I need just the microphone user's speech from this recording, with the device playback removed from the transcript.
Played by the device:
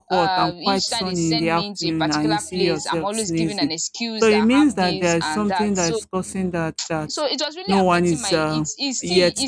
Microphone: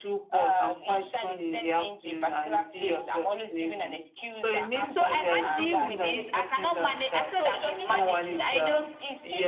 so i can't deal with this i cannot manage i said i've been managing i know

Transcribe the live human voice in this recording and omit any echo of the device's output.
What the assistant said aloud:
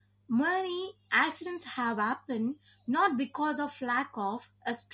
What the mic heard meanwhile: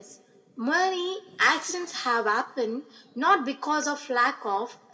none

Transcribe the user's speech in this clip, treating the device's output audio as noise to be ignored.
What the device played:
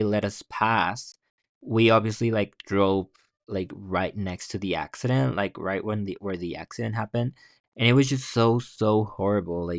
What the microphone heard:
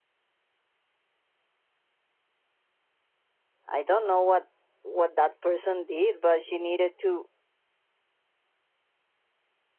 I don't know what what that person did, but she needed to

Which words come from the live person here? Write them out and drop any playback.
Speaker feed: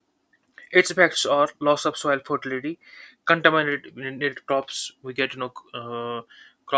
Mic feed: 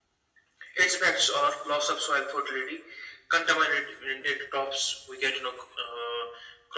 none

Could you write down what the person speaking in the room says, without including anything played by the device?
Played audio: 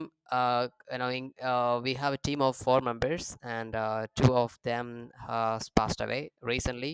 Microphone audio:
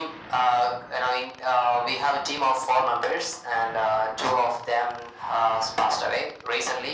none

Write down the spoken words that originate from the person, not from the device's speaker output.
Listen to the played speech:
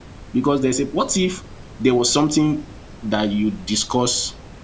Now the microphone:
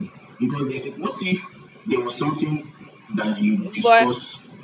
But

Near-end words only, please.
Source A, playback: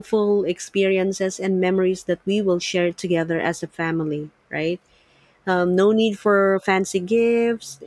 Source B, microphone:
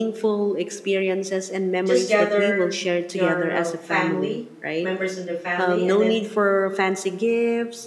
just gather your uh, family, members of the family, and then

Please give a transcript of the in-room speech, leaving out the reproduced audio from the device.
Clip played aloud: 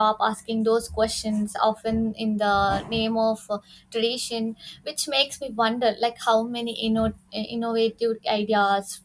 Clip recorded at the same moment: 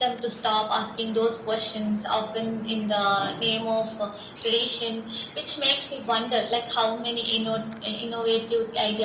none

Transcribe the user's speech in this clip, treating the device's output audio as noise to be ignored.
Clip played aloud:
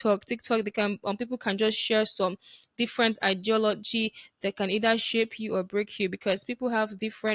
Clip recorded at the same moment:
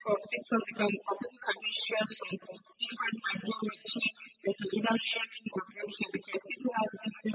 none

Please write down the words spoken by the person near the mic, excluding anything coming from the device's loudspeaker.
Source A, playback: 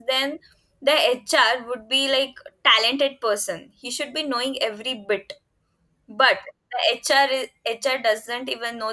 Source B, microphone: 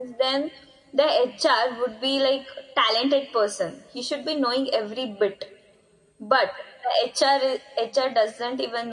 none

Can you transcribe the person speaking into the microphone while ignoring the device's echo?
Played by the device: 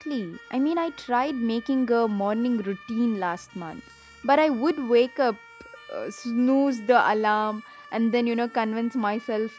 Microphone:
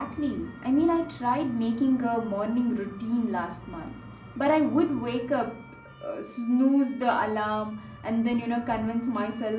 none

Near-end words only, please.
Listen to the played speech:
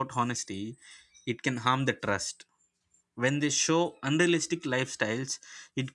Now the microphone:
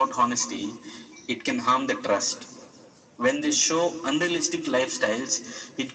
none

